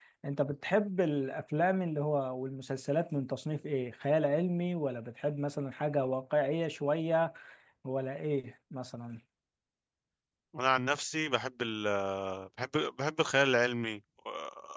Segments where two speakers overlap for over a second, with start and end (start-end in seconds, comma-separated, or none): none